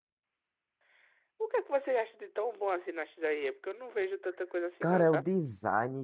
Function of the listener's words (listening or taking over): taking over